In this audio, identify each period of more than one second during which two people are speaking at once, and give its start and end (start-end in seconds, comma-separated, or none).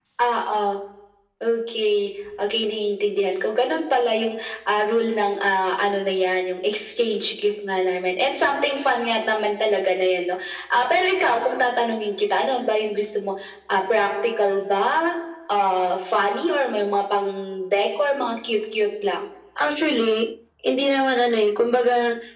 none